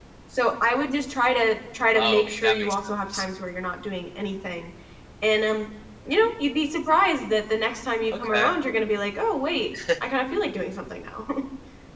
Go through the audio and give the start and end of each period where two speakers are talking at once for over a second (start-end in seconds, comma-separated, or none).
1.9-3.2